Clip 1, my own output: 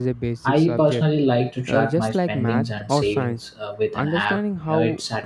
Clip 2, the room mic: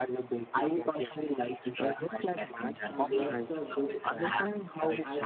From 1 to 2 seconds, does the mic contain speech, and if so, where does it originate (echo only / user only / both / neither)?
echo only